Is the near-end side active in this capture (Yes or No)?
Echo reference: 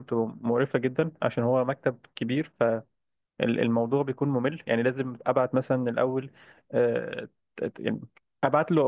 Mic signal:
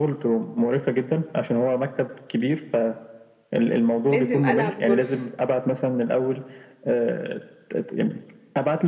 Yes